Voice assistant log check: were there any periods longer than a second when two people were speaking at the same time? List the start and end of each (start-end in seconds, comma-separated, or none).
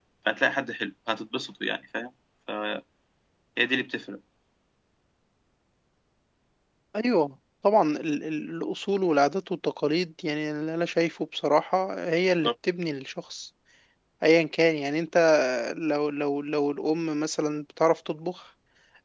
none